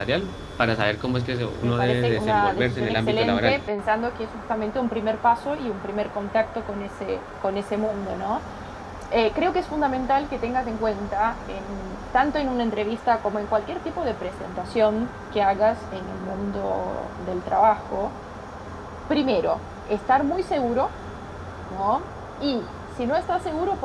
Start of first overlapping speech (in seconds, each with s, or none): 1.6 s